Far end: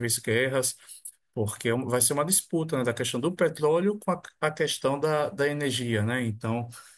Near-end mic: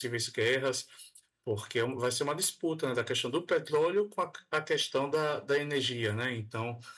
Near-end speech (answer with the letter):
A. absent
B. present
A